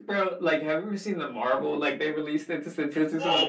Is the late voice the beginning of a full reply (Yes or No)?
Yes